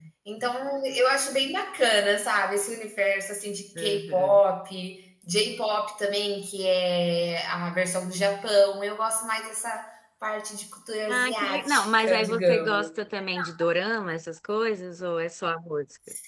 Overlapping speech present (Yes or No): Yes